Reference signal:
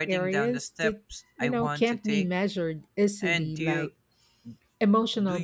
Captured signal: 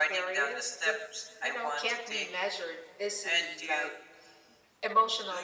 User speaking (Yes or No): No